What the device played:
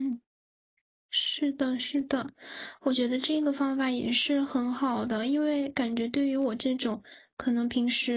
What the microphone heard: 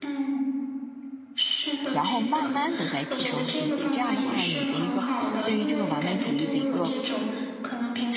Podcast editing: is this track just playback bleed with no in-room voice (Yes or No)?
No